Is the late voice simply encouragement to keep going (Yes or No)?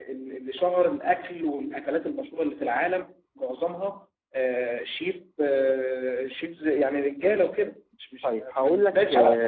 No